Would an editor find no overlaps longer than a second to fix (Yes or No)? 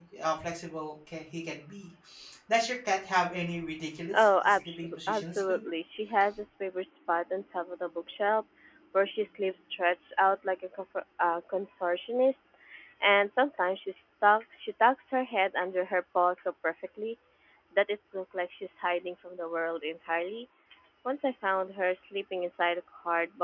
No